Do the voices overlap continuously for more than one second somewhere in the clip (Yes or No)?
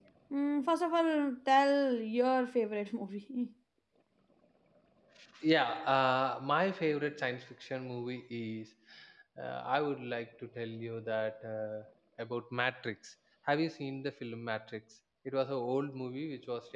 No